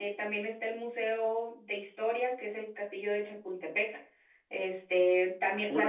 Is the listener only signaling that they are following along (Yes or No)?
No